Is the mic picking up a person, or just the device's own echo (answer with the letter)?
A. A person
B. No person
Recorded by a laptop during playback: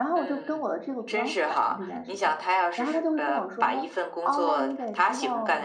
A